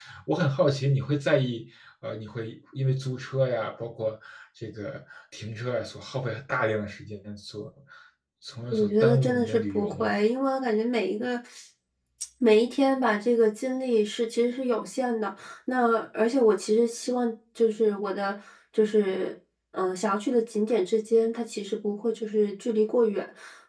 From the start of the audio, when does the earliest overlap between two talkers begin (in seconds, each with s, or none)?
8.7 s